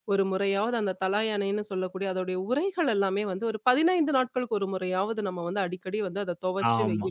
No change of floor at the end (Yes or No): No